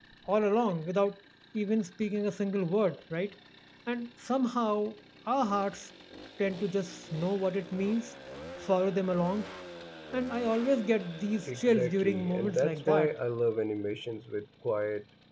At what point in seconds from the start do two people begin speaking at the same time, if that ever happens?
11.5 s

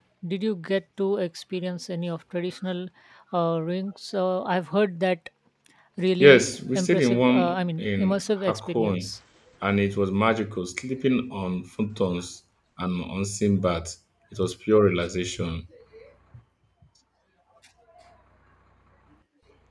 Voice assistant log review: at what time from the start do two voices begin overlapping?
6.2 s

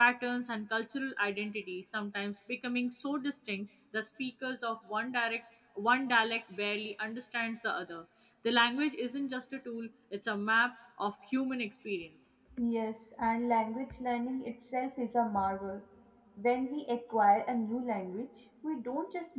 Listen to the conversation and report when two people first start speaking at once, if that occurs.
none

